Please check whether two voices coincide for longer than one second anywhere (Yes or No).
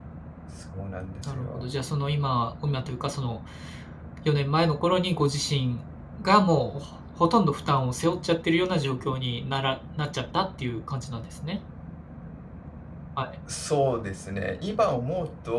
No